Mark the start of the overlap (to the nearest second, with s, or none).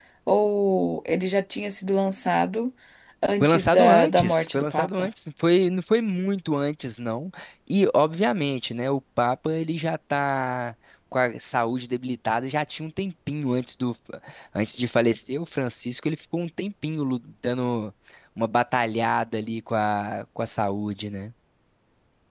3 s